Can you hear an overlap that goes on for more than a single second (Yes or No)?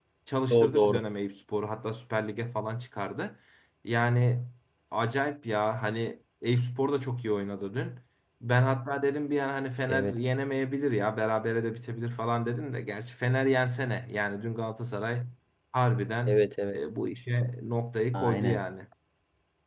No